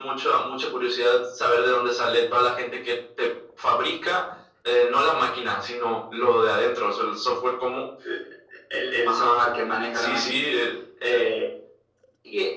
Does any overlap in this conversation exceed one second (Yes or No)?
No